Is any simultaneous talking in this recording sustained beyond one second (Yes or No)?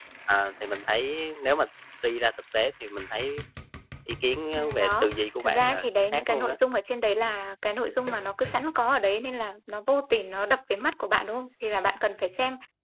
Yes